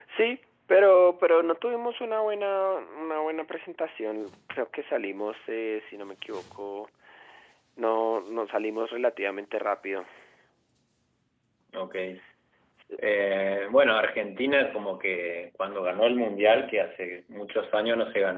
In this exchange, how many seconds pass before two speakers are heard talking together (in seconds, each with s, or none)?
none